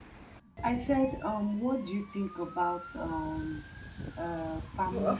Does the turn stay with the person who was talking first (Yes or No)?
No